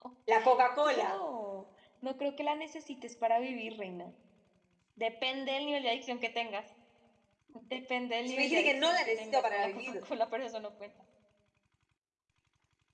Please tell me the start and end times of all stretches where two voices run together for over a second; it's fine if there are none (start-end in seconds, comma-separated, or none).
8.2-9.9